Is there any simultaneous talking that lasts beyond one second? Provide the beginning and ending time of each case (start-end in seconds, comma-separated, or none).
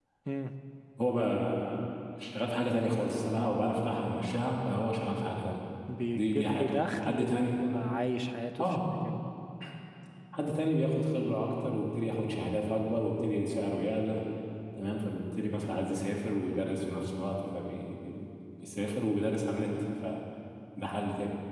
6.1-7.5